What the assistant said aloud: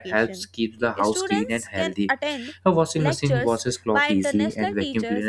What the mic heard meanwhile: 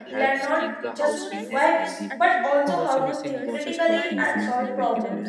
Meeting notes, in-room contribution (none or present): present